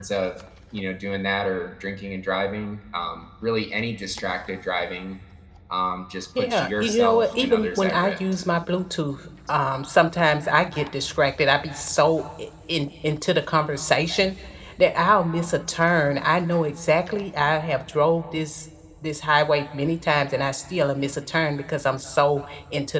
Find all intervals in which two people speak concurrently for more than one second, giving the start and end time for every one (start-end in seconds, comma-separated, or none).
6.4-8.4